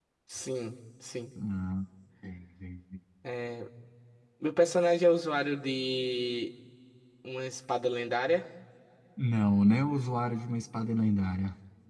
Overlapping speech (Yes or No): No